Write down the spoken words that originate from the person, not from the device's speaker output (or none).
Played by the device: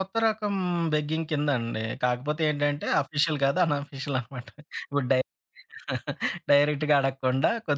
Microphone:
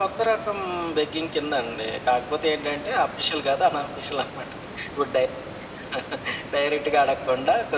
none